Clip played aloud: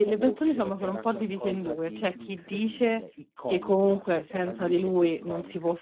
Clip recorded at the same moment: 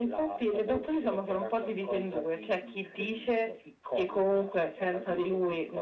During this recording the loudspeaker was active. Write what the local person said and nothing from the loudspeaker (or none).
none